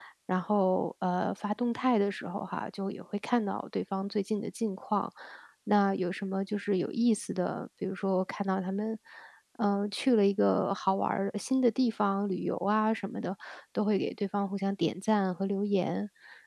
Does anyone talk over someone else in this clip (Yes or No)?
No